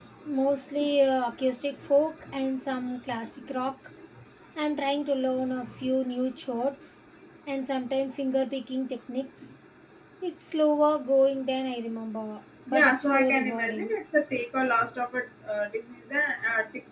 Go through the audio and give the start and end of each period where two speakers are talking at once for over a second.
12.7-13.9

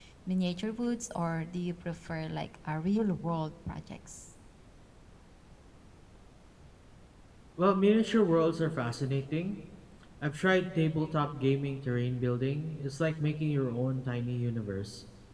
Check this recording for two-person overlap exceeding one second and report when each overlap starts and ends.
none

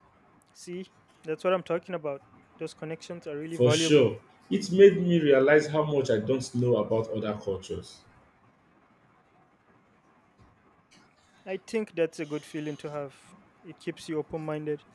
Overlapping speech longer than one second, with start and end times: none

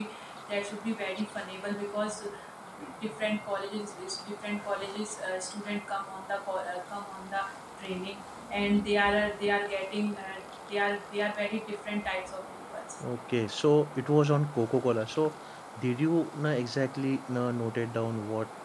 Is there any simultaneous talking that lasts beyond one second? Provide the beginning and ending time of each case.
none

